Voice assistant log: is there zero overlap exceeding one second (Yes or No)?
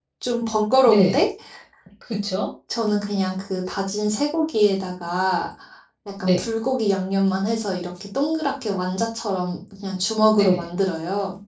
Yes